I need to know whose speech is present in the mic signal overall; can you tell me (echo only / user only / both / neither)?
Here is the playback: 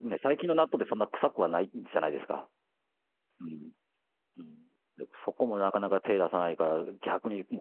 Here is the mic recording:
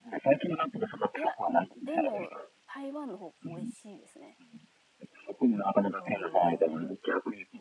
both